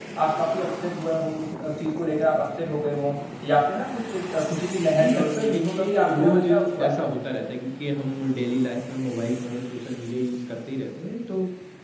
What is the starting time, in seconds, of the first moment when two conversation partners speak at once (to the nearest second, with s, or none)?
5 s